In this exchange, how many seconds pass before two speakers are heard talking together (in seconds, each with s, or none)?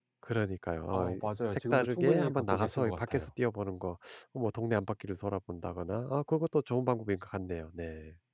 0.9 s